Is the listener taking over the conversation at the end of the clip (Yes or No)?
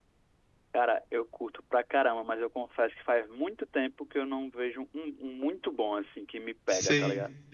Yes